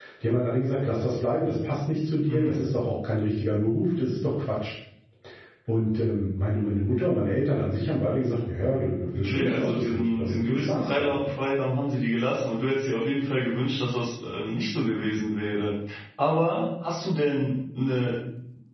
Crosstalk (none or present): present